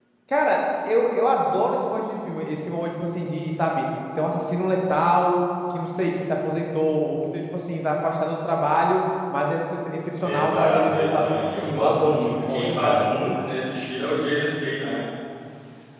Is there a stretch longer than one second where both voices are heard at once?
Yes, from 10.2 s

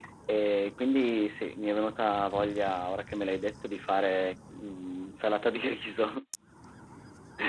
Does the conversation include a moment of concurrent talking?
No

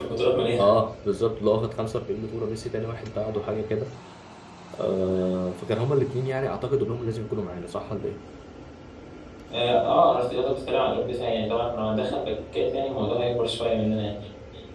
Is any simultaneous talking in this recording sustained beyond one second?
No

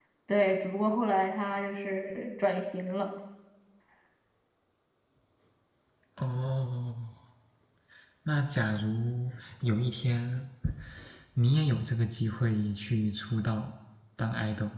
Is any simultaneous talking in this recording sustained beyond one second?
No

